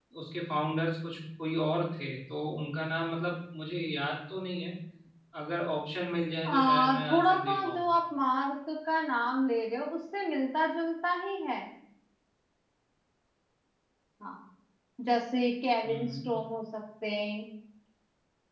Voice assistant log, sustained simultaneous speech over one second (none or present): present